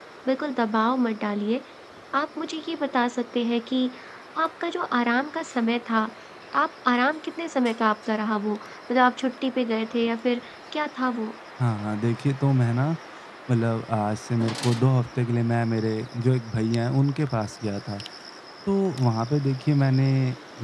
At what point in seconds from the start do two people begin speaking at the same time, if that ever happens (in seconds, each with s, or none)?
none